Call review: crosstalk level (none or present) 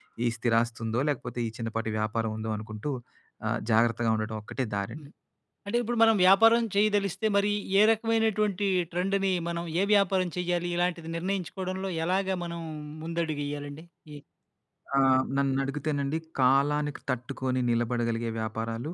none